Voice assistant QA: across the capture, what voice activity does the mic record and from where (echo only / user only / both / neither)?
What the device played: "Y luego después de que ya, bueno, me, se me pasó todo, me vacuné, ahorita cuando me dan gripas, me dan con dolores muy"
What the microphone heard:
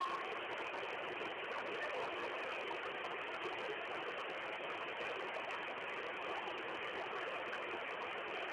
neither